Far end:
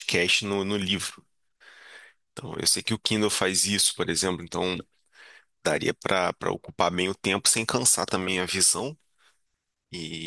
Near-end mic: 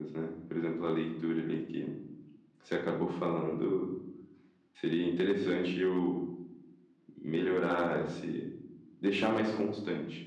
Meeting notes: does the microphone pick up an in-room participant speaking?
Yes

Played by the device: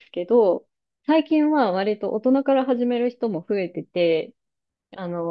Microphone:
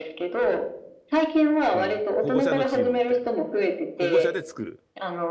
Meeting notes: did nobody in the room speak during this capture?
No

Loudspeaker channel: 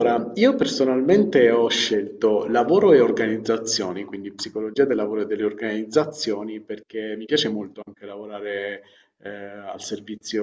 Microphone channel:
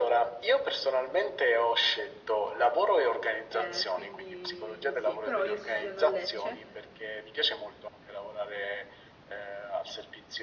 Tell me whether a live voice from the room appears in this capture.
Yes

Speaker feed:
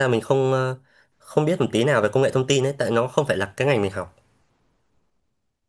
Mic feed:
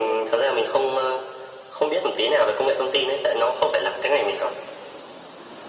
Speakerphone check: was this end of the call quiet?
Yes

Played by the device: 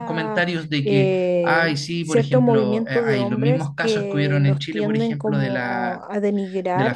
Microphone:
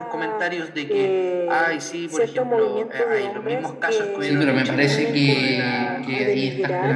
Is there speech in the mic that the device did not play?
Yes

